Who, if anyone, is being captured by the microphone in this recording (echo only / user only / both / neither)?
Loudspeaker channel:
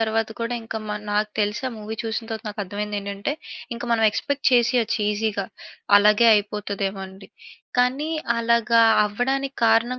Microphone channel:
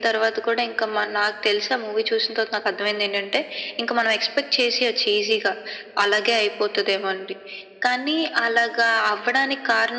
echo only